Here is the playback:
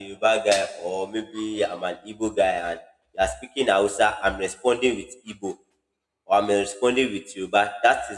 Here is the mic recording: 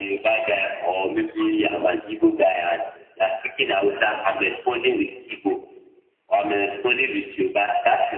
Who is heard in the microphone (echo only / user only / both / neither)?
echo only